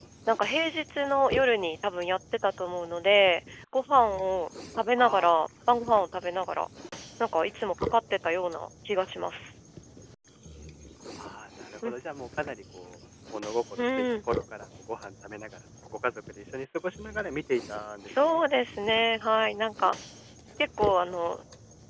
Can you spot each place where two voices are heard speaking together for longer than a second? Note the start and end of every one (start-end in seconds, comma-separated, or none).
none